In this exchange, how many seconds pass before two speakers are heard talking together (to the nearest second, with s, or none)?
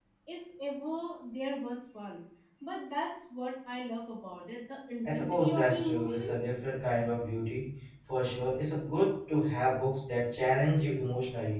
5 s